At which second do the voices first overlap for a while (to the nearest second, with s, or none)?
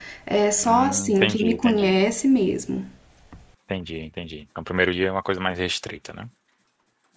1 s